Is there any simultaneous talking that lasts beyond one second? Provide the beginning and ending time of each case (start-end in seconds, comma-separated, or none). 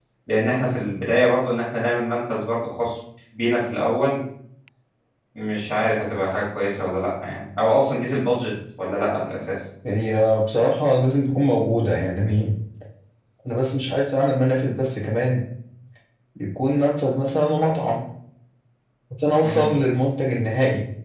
none